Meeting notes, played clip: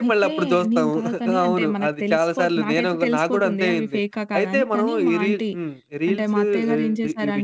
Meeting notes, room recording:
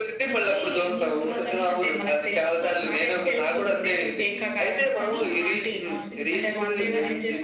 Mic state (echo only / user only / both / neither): both